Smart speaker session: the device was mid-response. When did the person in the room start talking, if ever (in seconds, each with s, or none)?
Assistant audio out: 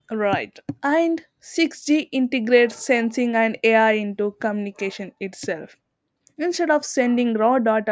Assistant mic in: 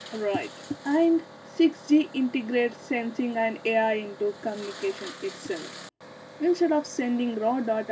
none